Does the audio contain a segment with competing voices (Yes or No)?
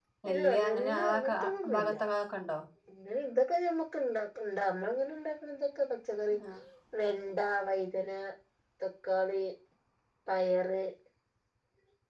Yes